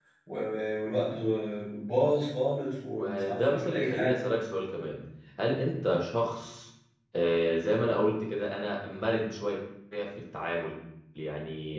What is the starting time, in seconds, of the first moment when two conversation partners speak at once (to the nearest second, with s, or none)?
3 s